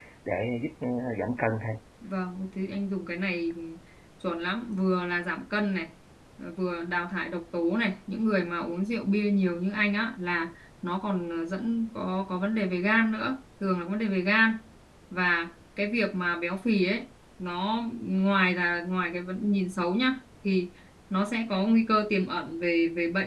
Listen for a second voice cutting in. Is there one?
No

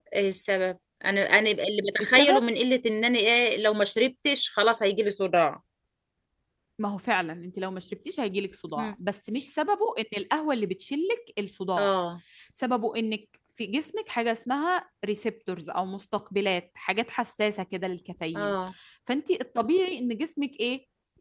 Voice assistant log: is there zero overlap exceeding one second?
Yes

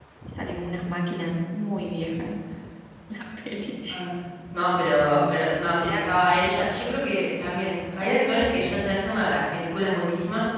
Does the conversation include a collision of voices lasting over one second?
No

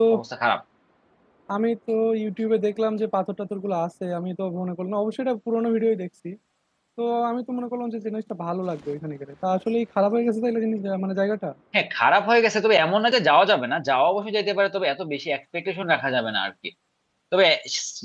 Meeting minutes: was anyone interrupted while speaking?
No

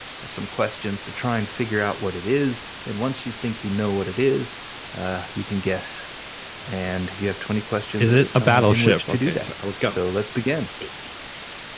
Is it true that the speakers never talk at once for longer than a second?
No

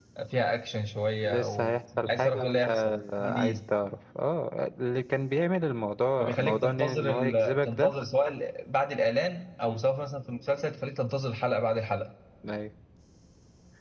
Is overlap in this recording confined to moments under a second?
No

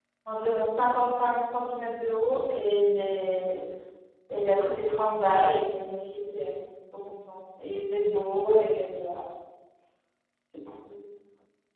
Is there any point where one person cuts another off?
No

